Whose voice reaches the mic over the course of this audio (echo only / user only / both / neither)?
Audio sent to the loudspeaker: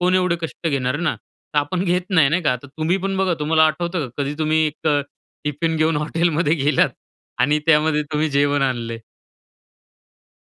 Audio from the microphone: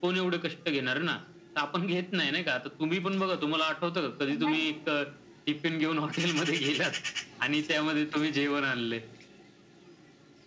both